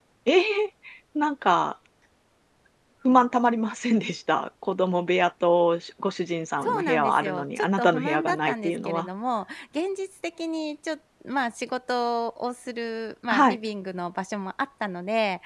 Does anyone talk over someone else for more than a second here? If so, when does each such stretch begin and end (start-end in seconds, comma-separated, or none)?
6.6-9.1